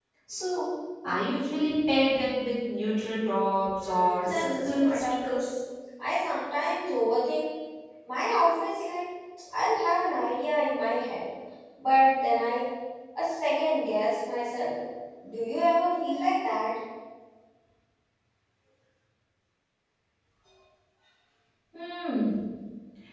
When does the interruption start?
3.8 s

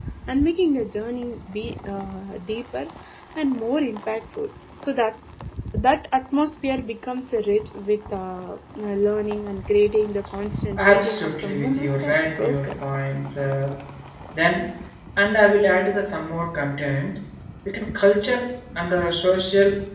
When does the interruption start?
10.8 s

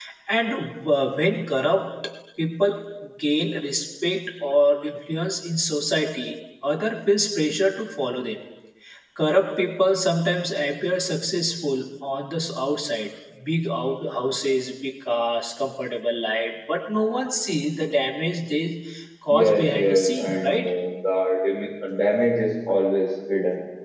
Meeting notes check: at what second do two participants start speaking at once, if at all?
19.3 s

